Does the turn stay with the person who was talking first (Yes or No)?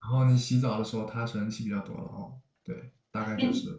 No